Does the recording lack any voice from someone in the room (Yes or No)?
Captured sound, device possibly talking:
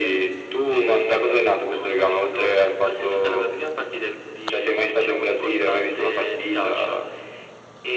Yes